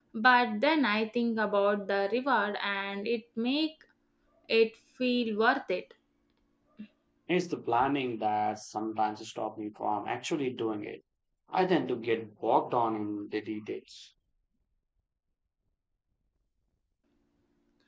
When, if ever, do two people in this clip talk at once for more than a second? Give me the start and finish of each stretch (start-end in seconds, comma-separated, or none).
none